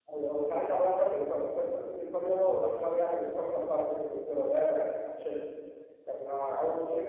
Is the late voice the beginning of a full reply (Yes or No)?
No